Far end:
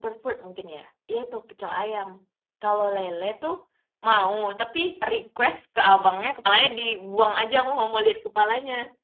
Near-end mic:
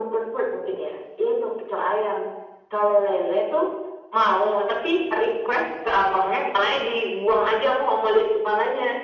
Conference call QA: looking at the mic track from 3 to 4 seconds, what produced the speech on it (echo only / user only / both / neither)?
echo only